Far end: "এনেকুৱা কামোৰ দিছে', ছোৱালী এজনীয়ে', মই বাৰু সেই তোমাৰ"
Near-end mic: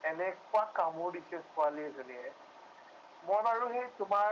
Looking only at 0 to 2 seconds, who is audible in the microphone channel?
echo only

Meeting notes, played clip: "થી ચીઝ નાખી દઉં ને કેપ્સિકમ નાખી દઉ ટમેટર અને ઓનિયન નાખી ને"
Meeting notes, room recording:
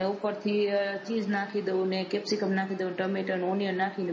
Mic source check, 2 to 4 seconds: echo only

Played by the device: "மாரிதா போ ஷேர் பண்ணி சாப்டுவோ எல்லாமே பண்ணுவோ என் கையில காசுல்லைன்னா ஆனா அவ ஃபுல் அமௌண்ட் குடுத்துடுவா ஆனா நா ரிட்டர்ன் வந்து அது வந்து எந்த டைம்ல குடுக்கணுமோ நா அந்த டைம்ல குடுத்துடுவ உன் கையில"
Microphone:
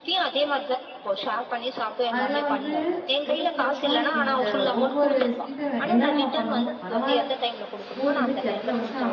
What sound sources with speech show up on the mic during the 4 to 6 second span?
both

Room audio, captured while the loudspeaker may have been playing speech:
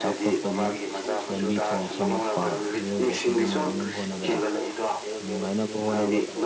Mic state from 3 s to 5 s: both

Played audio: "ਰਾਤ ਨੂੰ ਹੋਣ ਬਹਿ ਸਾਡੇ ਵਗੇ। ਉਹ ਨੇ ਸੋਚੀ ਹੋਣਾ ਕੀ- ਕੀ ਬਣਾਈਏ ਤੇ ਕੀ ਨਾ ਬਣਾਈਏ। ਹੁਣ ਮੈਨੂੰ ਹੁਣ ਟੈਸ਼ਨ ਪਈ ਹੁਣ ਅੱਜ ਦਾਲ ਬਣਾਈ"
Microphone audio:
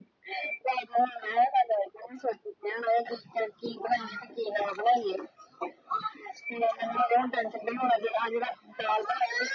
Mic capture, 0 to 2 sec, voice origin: echo only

